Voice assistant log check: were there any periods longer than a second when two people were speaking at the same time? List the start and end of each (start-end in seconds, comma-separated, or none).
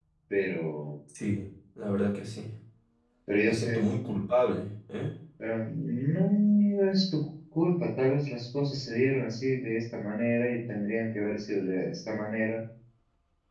none